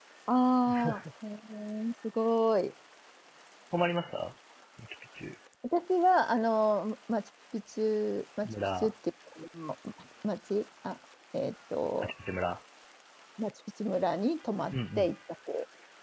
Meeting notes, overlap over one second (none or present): none